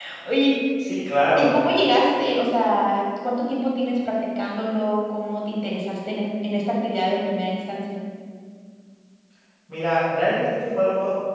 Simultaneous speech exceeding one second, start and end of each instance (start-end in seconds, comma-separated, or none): none